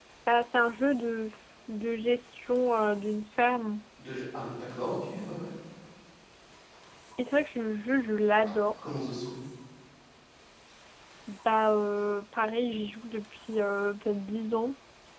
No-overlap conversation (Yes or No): Yes